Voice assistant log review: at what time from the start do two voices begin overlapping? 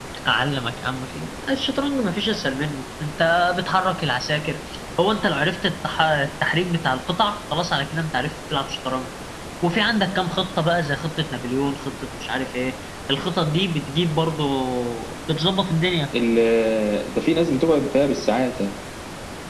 none

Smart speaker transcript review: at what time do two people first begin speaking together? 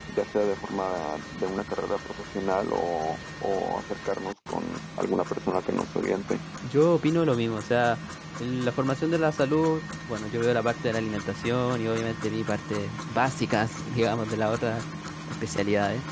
none

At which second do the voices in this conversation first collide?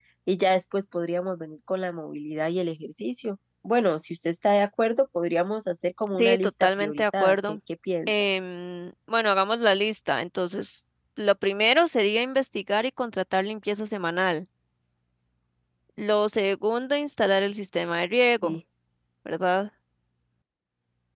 6.1 s

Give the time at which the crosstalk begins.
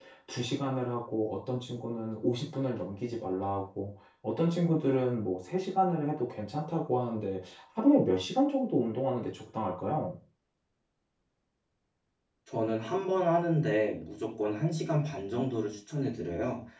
none

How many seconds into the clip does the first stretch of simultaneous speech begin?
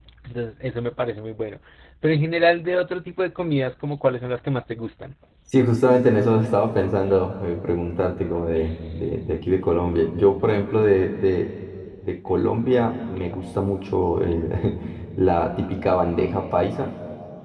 none

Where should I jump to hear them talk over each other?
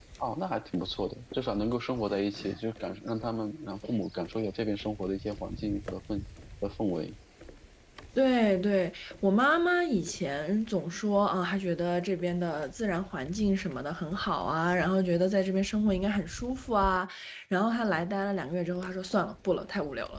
none

